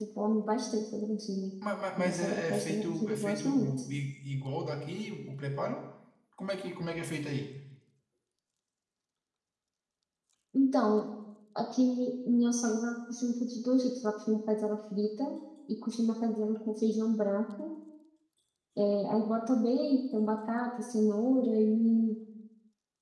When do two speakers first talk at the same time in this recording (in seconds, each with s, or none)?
2.0 s